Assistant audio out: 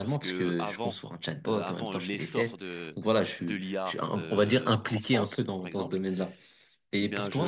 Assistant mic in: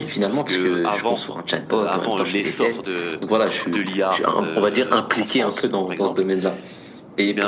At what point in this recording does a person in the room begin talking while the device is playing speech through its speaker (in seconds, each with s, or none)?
none